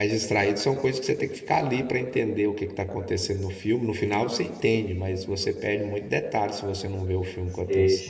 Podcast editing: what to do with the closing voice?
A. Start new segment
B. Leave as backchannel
A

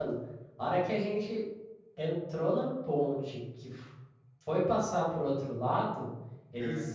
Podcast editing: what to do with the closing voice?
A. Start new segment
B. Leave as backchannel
B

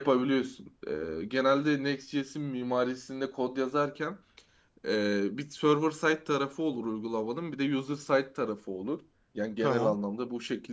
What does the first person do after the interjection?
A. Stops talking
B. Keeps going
B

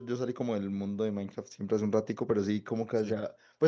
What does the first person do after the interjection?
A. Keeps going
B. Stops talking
A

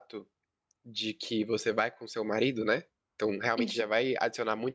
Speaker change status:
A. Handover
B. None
B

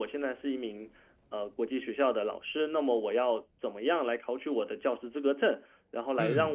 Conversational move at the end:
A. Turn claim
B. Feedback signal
B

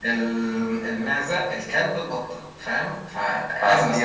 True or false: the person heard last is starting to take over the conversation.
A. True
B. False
A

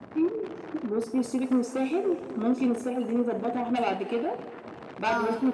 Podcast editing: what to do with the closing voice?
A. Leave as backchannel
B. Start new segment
A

